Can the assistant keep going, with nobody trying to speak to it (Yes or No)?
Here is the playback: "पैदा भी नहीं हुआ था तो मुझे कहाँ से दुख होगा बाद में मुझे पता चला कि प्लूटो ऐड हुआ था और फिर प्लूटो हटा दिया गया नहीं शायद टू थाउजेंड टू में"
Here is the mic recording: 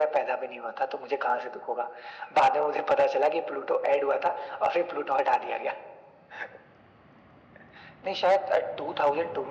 Yes